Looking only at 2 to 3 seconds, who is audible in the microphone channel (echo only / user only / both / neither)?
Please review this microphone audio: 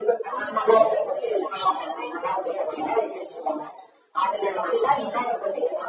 echo only